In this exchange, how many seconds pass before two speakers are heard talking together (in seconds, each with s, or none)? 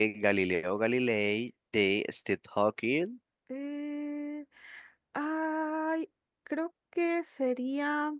none